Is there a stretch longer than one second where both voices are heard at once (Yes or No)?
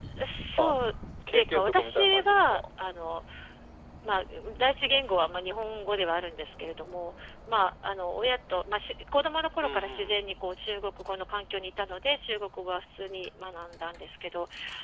Yes